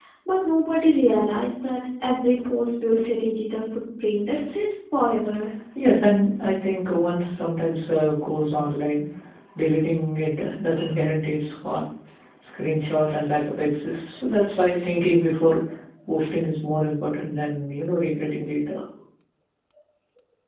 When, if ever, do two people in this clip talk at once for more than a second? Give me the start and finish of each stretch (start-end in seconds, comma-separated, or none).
none